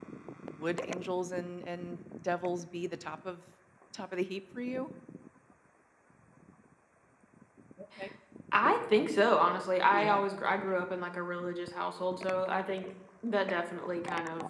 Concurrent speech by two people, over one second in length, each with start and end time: none

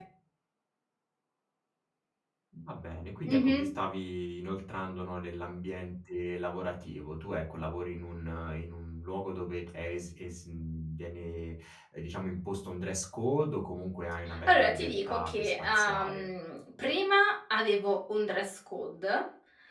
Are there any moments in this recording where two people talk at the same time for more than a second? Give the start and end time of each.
14.5-16.3

